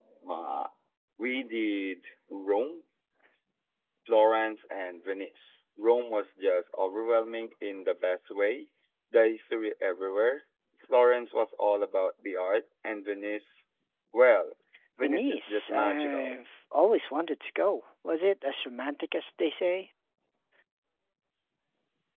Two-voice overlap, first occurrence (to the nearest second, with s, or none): 15 s